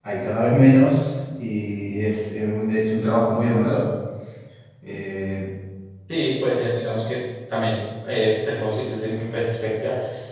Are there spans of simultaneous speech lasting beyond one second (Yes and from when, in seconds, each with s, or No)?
No